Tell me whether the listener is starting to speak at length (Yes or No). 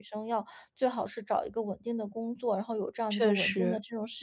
No